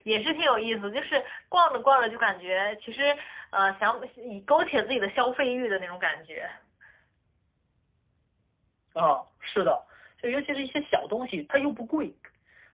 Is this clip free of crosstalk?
Yes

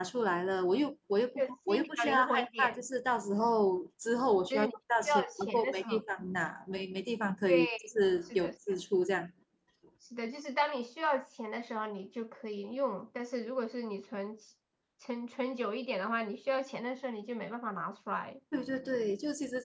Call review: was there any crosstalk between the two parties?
Yes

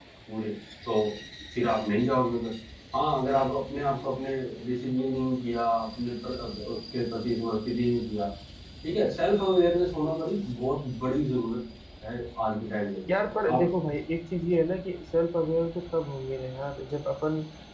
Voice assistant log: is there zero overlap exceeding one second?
Yes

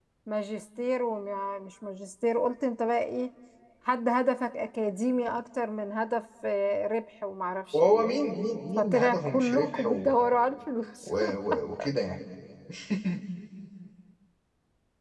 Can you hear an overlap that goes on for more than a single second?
Yes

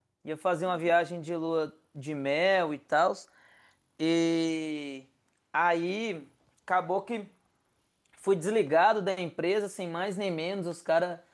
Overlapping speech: No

